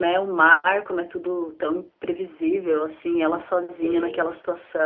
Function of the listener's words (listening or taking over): listening